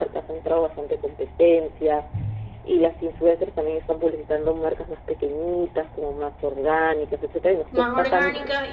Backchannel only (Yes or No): No